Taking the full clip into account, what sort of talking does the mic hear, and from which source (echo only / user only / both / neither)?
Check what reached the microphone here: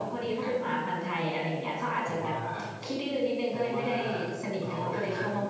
echo only